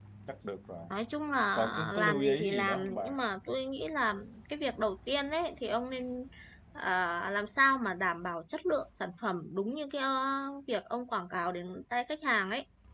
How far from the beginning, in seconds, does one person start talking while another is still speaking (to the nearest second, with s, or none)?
2 s